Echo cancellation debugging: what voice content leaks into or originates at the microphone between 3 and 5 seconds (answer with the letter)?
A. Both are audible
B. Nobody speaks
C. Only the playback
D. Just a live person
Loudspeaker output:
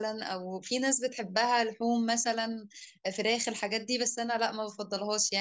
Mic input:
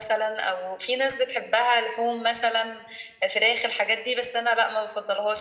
C